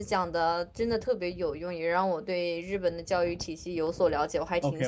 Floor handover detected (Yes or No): Yes